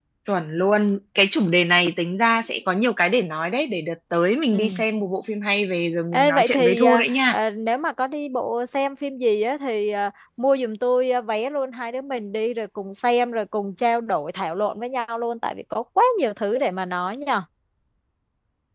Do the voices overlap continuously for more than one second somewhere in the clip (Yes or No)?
Yes